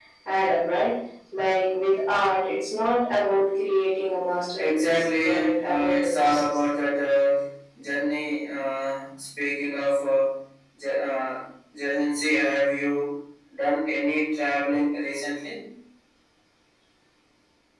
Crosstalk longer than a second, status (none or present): present